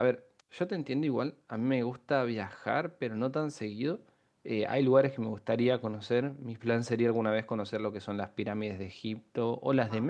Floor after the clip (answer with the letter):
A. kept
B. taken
A